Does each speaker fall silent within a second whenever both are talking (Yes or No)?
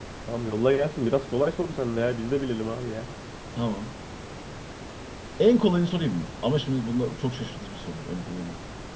Yes